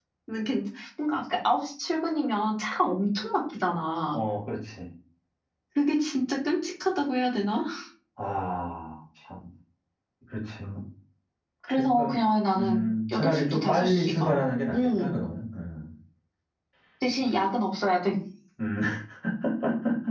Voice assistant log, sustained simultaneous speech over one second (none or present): present